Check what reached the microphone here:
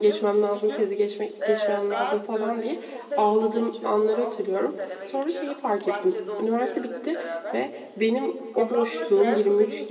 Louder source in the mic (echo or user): user